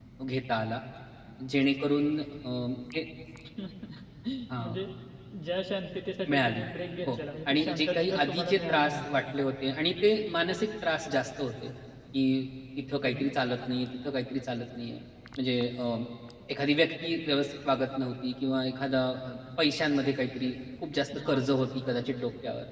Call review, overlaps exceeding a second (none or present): present